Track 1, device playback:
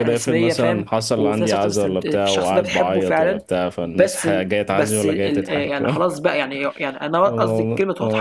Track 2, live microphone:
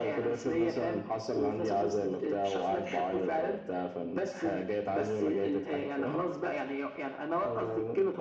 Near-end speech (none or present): none